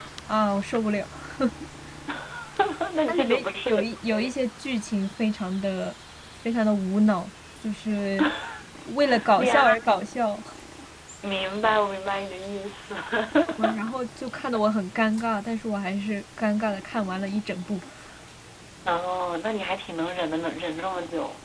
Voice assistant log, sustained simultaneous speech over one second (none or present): present